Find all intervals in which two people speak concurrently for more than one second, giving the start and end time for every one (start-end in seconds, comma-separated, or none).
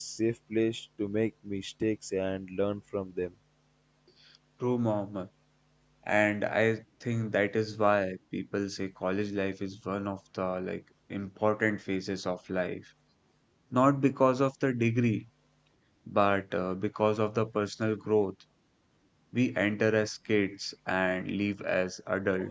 none